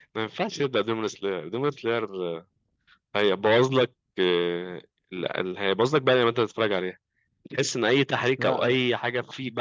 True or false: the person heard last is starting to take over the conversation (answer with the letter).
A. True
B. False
B